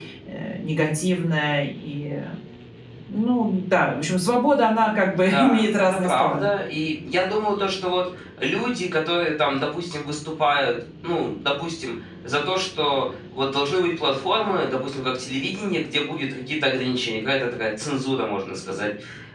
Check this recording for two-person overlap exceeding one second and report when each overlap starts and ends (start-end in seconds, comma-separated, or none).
5.1-6.5